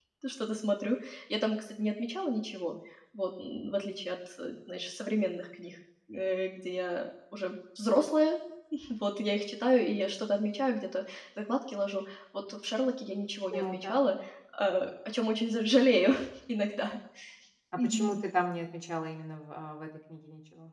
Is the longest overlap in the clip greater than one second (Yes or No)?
No